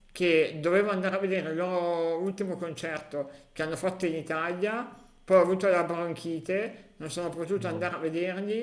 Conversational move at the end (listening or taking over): listening